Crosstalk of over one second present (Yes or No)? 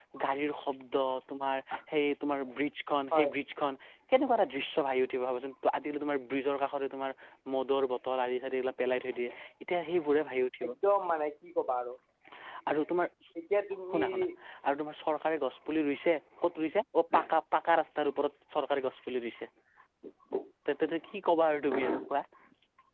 No